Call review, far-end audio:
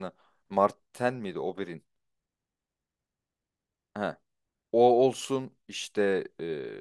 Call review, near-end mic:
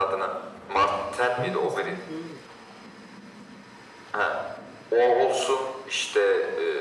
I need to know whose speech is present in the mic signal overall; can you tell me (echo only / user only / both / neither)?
both